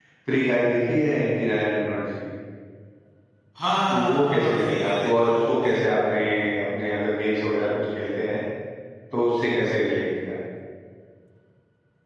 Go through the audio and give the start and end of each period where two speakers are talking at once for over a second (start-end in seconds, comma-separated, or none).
3.9-5.8